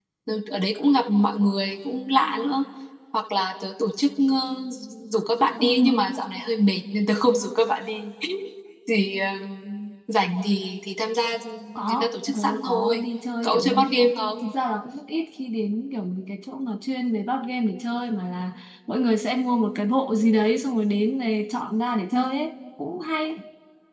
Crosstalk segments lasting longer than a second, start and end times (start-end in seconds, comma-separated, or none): 11.8-13.0